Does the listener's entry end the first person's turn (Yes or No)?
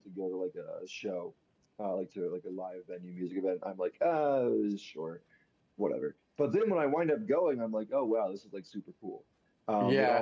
Yes